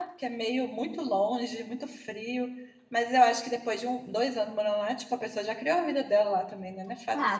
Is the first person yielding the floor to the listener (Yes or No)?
Yes